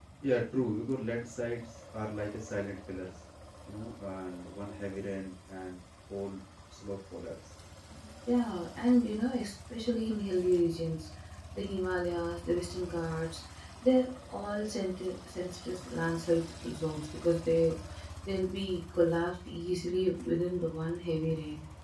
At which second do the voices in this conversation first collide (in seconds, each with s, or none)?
none